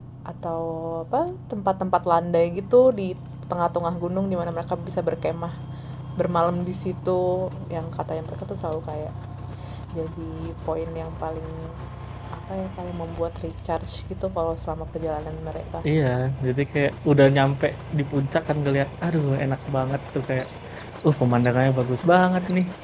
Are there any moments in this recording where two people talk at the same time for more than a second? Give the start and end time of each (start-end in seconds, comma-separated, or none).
none